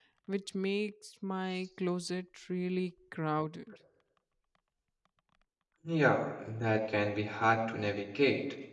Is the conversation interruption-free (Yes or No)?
Yes